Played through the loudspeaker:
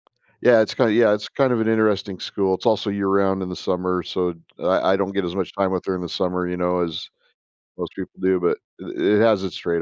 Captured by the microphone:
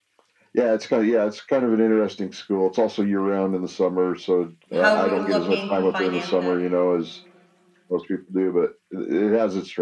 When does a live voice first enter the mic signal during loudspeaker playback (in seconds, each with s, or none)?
4.7 s